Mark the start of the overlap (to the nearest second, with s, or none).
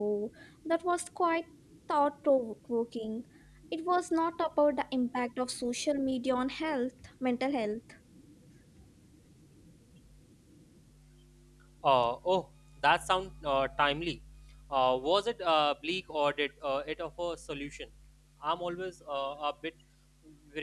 none